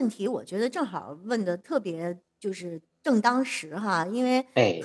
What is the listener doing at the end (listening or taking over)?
listening